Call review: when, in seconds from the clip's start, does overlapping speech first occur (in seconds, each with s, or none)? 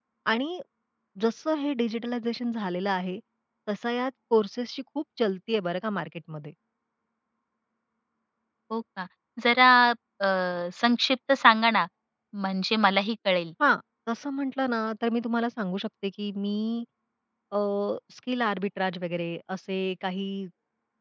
none